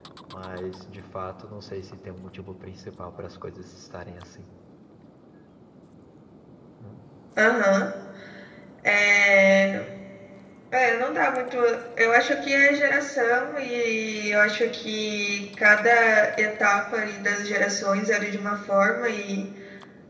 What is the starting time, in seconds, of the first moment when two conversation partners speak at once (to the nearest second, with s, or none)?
none